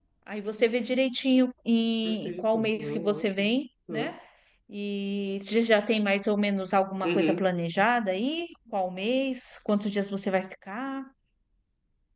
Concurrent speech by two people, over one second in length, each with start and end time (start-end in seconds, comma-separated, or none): 2.0-3.5